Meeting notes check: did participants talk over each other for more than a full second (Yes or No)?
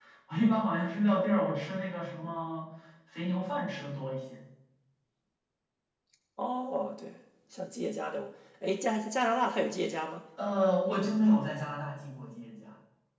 No